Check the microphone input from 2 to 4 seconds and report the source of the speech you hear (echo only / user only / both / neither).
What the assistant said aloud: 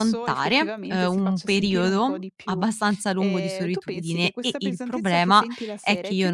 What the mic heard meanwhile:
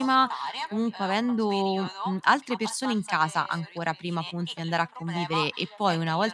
both